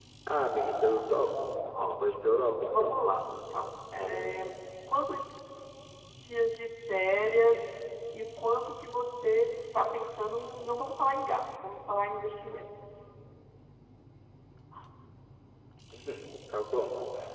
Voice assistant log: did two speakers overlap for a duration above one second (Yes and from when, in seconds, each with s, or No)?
No